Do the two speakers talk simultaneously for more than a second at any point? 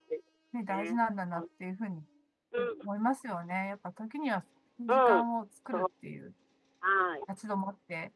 No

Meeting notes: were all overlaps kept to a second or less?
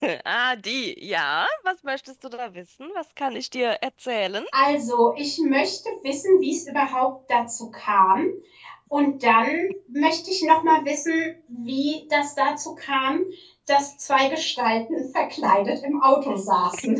Yes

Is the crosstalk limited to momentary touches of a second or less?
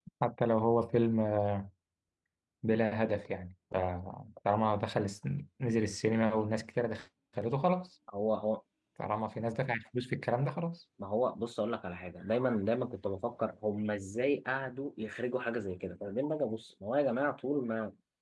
Yes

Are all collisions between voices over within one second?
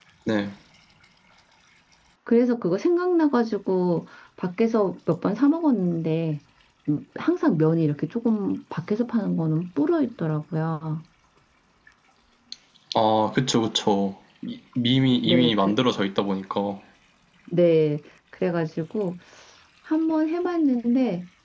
Yes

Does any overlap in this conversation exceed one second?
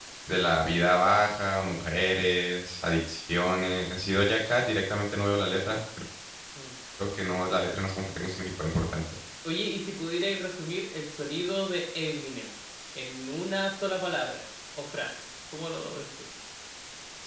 No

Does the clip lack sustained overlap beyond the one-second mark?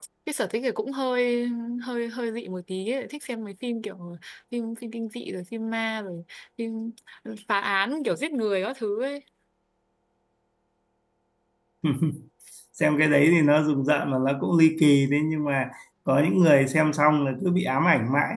Yes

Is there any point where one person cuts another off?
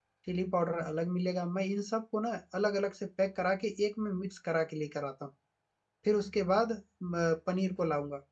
No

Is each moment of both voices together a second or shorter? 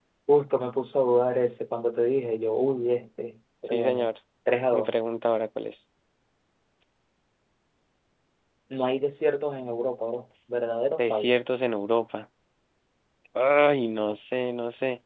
Yes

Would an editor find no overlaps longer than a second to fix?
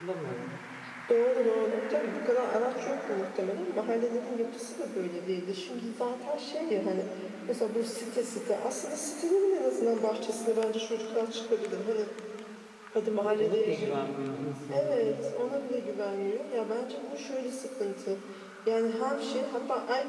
Yes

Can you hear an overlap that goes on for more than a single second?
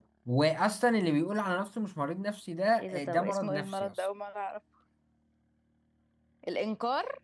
Yes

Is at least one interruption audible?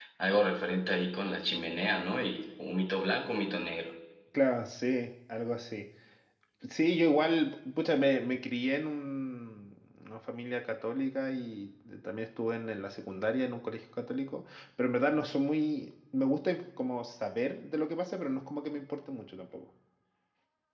No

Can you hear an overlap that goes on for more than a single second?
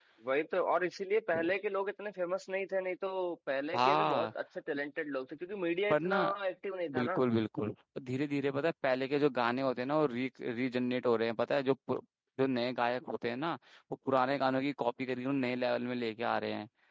No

